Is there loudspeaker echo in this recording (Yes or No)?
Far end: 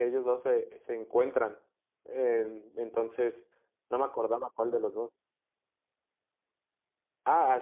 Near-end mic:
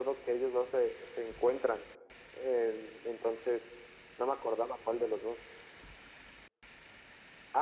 Yes